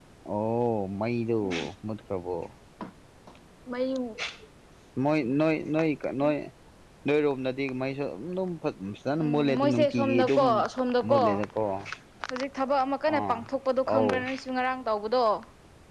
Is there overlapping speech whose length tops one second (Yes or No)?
Yes